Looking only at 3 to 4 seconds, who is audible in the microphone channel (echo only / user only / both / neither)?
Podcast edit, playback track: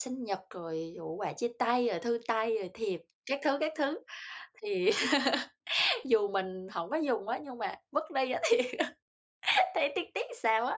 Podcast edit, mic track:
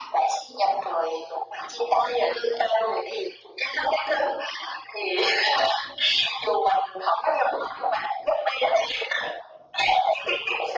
echo only